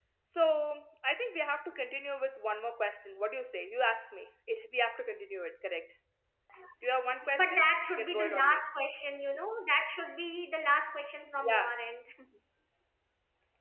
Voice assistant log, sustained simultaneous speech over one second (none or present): present